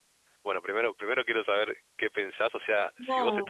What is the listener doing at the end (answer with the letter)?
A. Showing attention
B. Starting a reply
A